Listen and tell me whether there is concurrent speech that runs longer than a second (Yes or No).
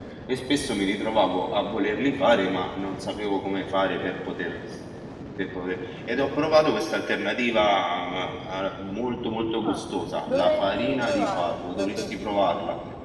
Yes